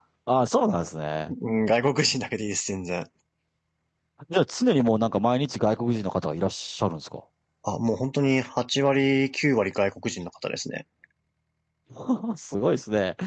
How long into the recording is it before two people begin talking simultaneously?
none

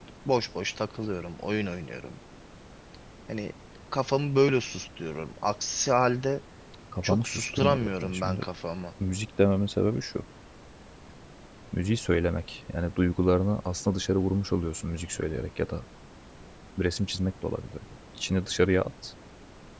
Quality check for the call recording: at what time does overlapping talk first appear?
7.0 s

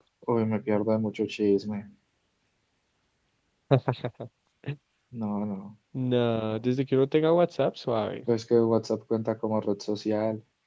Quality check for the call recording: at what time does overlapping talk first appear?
none

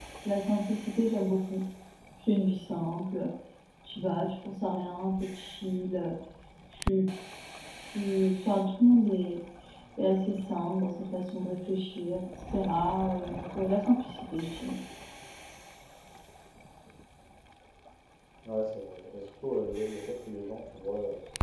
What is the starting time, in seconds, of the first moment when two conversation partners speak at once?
none

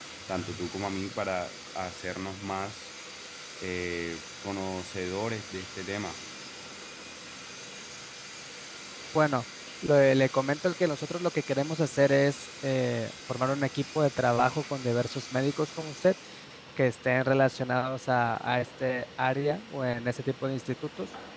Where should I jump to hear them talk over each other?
none

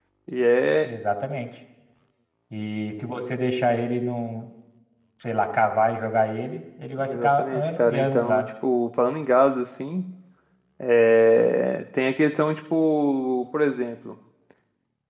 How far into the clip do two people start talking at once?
7.0 s

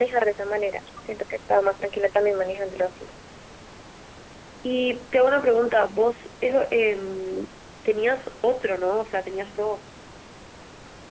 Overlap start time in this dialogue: none

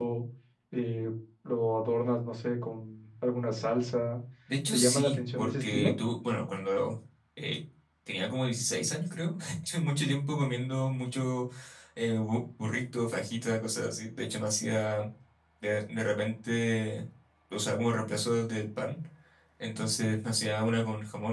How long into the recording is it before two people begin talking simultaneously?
4.7 s

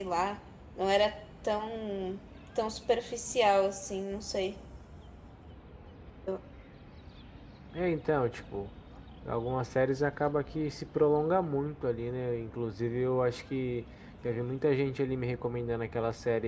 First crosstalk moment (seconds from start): none

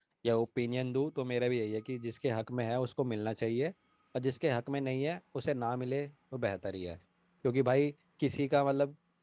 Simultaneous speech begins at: none

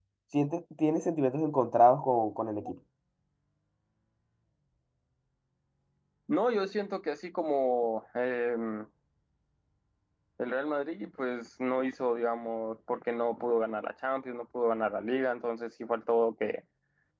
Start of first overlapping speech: none

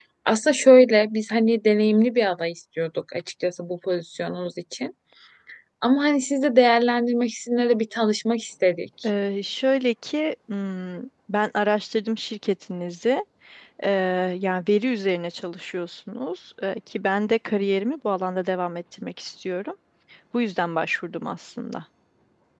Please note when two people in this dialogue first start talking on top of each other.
none

